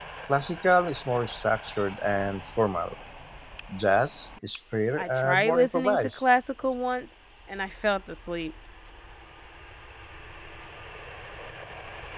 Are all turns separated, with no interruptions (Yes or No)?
No